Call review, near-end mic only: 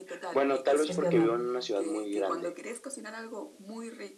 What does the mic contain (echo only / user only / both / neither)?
both